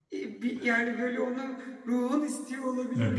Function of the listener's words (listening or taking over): taking over